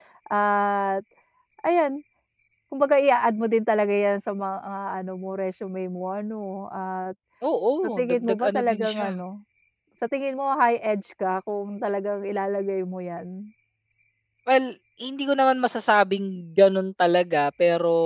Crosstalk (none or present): present